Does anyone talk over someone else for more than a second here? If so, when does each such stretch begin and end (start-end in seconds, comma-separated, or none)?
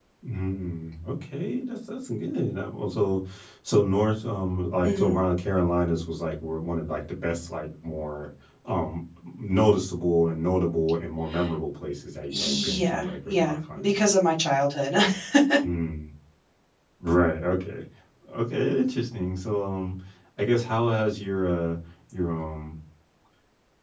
12.3-14.0